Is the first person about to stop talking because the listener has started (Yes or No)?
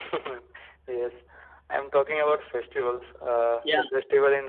No